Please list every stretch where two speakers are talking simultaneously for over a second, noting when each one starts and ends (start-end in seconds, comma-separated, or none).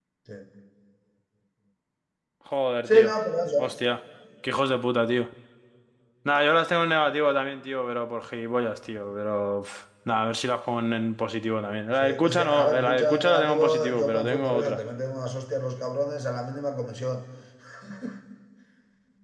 12.0-14.8